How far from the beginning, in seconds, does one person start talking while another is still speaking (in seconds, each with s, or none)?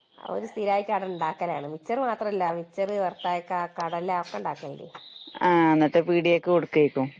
none